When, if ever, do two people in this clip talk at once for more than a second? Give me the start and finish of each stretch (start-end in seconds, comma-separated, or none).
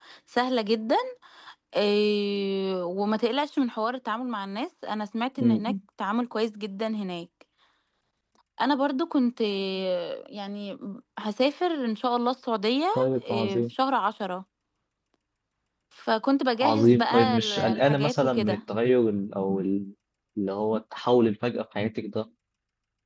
16.6-18.6